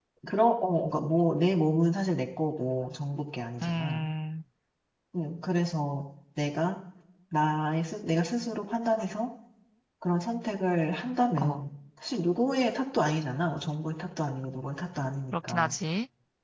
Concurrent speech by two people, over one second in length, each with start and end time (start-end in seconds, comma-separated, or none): none